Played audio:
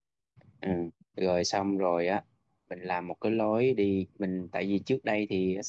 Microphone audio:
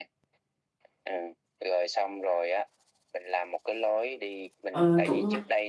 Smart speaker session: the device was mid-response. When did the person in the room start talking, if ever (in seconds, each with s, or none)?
4.7 s